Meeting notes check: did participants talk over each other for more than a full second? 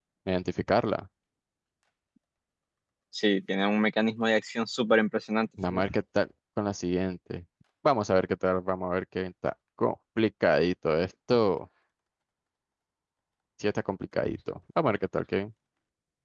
No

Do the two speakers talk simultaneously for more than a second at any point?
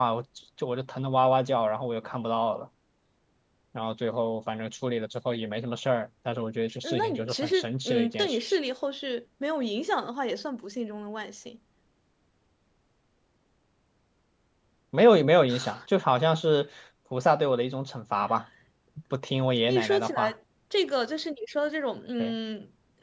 Yes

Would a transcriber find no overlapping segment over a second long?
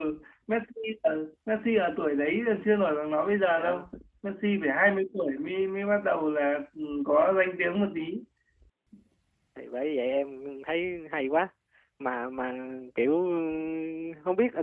Yes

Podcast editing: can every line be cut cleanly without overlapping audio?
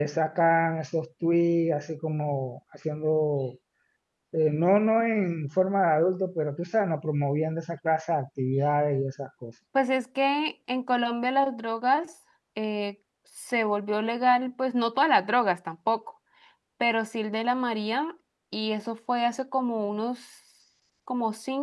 Yes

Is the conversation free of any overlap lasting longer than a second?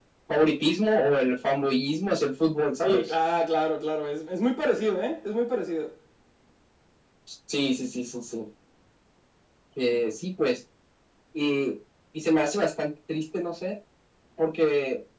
Yes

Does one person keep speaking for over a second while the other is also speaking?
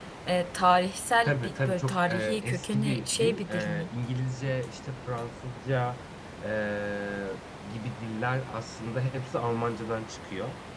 Yes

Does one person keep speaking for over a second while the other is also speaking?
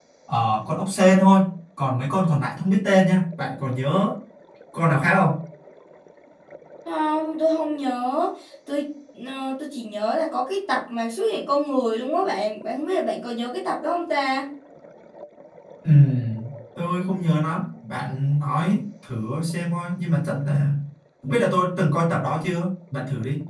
No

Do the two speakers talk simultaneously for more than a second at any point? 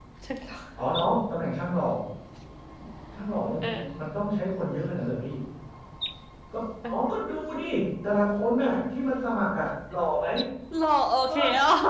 No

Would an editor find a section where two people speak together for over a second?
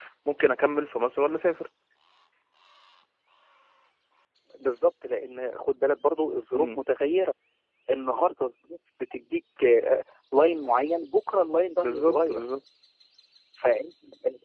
No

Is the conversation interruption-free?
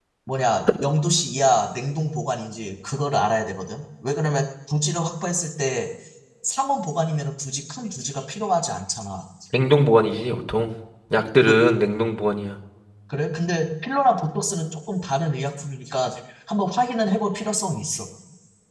Yes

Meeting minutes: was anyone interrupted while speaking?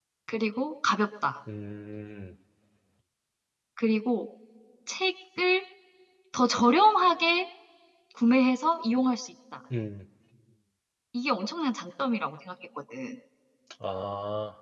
No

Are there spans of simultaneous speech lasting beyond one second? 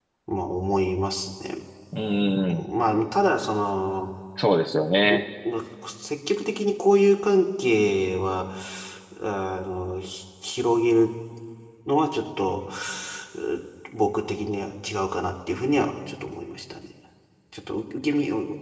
No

